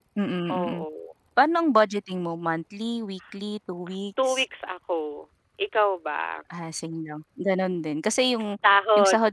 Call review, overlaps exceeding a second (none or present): none